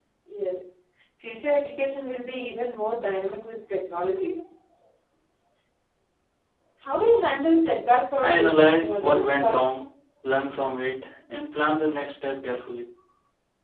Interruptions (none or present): present